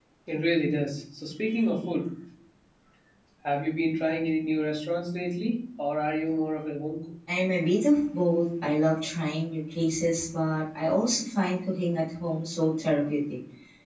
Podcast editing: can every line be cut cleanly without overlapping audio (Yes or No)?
Yes